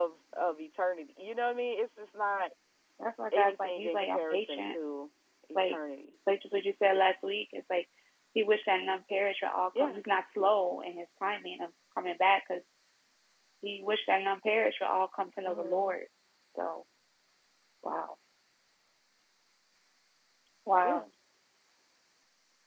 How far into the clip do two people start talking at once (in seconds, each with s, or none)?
3.3 s